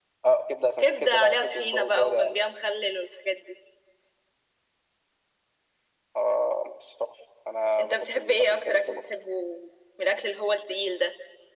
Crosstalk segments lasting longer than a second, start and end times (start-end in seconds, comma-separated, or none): 0.8-2.4, 7.8-9.0